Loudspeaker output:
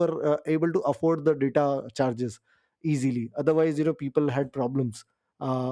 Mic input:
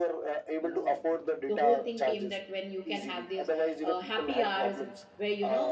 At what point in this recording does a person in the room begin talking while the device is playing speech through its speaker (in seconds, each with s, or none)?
0.6 s